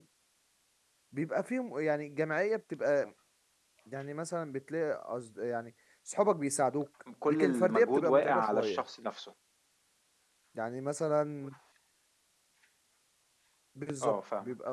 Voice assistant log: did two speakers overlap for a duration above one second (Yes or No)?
Yes